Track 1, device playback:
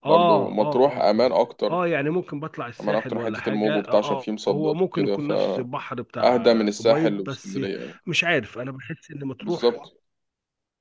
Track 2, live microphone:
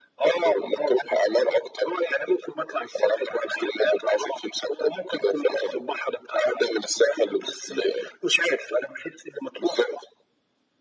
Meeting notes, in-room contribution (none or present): none